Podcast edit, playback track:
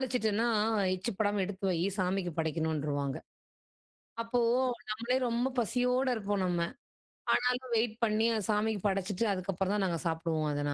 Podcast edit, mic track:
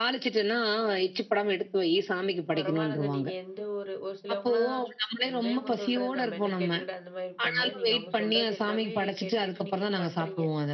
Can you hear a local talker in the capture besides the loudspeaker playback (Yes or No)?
Yes